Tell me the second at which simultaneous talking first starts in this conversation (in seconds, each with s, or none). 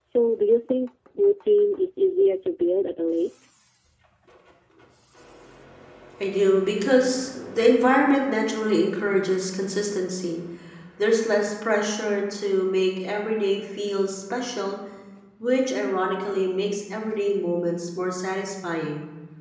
none